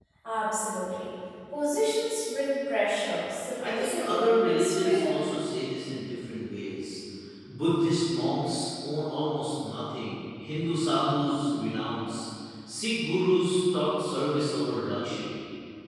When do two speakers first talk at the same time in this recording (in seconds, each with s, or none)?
3.6 s